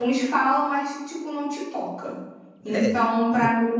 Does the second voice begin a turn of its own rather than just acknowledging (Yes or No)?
No